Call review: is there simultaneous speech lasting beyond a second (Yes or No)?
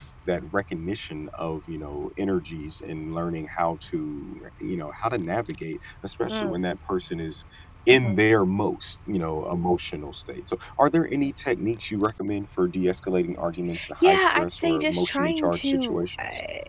Yes